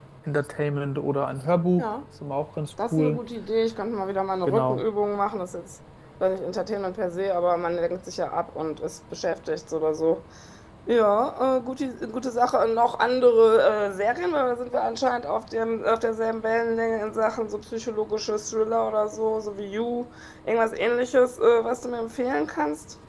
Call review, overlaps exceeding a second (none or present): none